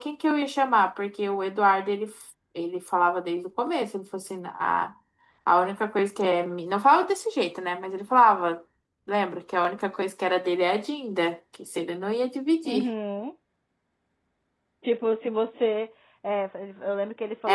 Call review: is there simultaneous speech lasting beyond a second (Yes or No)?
No